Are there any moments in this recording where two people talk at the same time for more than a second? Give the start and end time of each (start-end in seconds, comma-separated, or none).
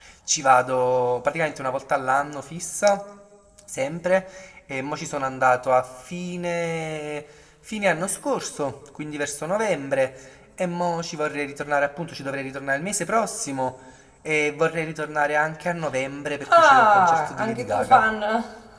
16.6-18.0